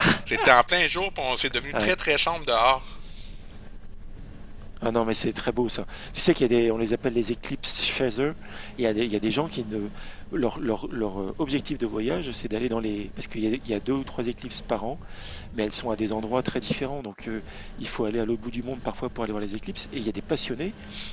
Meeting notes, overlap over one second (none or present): none